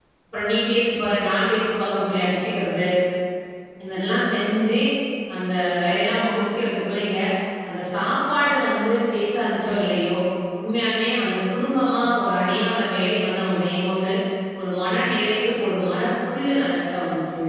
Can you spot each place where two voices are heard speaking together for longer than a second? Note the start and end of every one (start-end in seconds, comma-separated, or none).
none